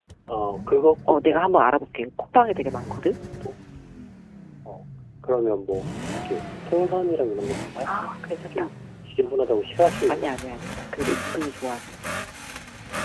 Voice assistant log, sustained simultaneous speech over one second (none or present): none